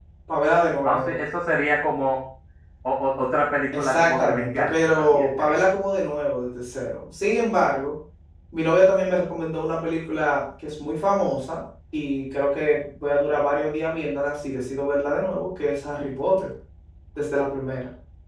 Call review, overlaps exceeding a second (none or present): present